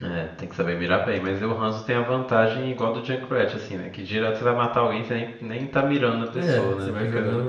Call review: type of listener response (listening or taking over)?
taking over